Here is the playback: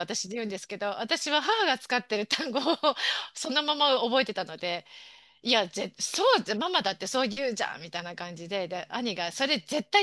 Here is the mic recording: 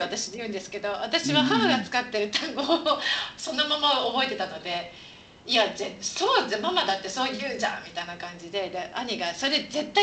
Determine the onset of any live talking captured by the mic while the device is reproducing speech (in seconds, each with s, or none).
1.2 s